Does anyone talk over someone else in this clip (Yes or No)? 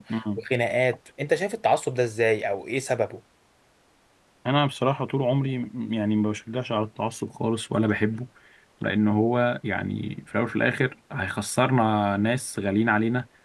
No